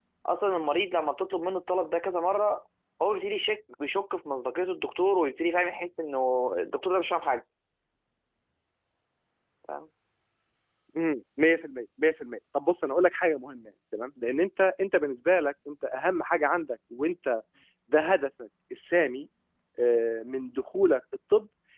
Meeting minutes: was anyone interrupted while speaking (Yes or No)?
No